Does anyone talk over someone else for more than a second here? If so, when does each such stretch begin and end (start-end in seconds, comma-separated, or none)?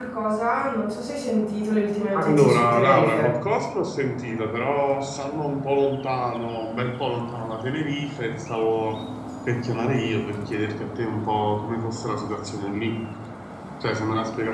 2.1-3.4